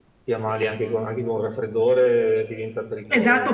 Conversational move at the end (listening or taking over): taking over